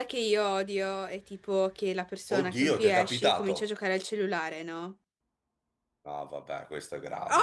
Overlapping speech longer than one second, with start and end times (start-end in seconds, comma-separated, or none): 2.3-3.6